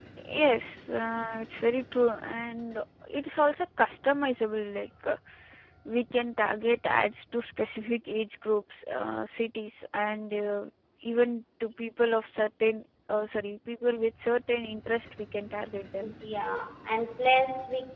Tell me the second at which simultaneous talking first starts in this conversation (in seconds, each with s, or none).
none